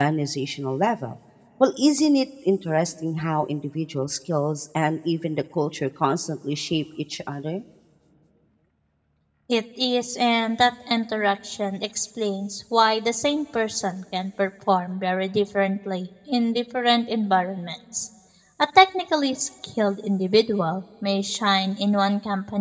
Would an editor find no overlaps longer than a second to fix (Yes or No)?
Yes